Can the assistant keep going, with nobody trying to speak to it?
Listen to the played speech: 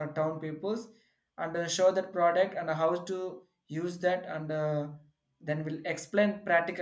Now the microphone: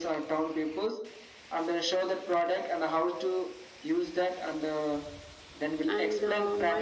No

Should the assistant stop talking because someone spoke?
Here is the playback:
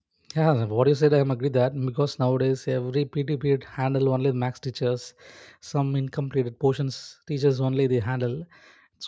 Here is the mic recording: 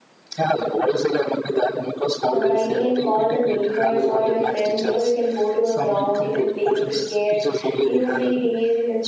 Yes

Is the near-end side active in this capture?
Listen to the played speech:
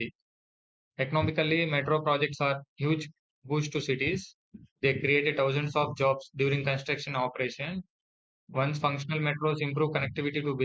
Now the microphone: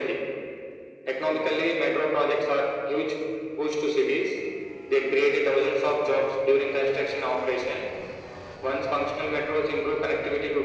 No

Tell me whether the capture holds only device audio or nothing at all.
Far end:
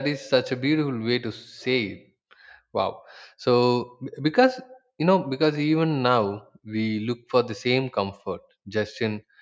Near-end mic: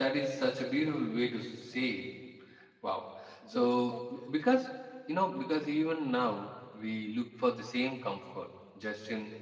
No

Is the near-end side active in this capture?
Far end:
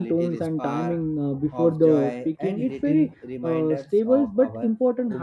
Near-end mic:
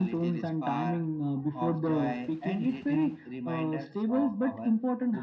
No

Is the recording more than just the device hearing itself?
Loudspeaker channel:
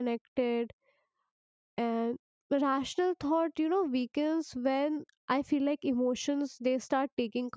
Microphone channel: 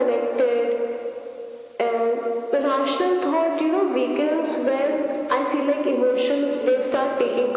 Yes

